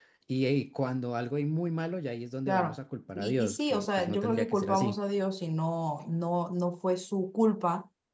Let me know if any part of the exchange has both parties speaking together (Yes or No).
Yes